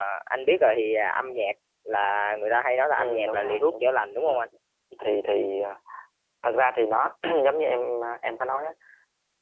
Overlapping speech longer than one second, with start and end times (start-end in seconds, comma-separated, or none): 2.9-4.3